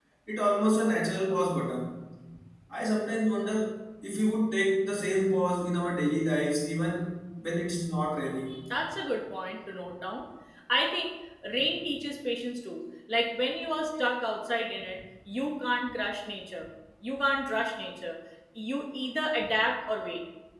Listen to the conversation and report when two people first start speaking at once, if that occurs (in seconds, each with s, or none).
none